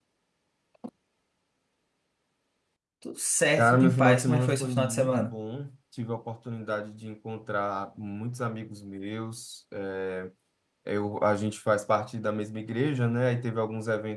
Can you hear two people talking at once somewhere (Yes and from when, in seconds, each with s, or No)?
Yes, from 3.6 s